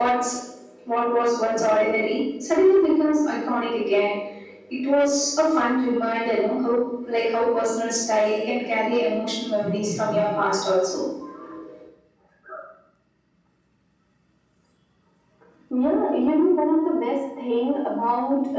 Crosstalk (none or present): none